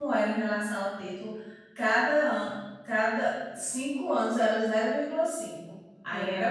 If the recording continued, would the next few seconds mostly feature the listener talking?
Yes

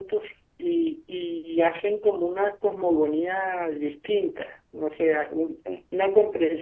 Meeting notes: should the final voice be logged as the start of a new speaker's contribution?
No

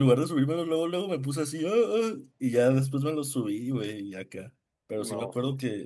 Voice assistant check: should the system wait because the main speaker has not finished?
Yes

